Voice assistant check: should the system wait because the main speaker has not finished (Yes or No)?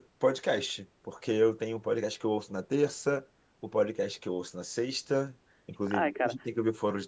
Yes